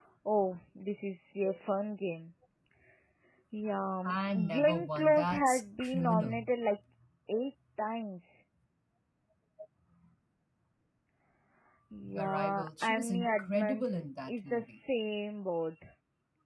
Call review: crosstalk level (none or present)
present